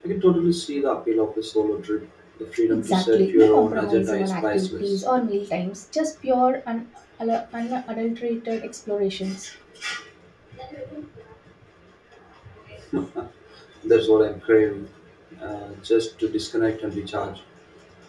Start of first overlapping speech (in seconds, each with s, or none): 2.7 s